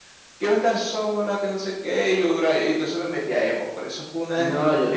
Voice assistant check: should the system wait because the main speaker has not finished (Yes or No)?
No